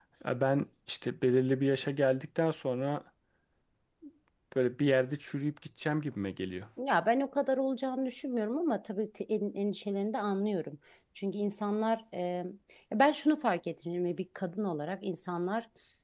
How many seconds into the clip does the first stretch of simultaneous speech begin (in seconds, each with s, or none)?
none